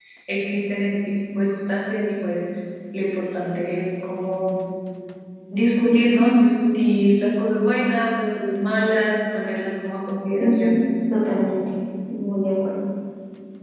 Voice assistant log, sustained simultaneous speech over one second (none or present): none